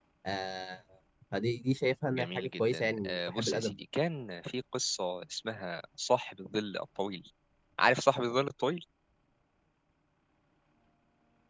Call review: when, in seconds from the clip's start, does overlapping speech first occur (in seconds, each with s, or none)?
2.1 s